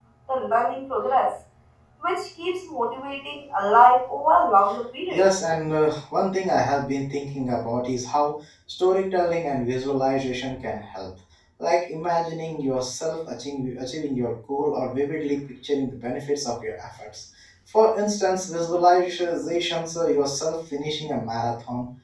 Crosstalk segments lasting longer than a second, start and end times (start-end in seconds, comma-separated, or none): none